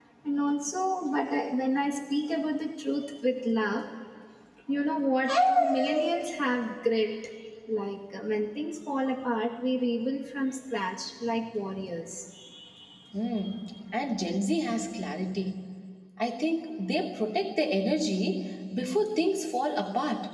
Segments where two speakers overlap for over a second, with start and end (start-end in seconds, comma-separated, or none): none